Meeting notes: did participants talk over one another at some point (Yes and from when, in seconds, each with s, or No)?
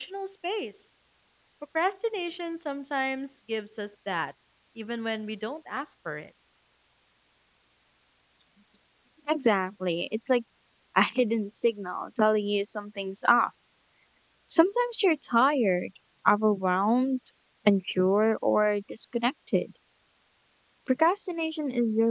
No